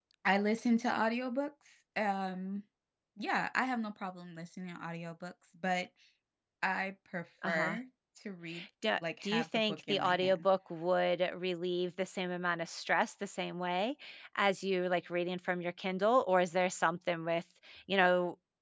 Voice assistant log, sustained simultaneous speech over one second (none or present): present